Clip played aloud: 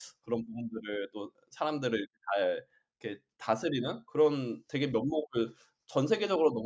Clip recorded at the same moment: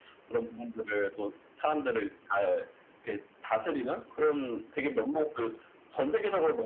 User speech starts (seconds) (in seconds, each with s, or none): none